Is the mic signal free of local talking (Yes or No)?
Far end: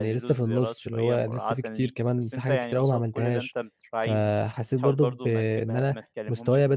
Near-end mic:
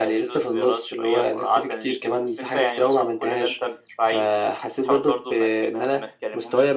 Yes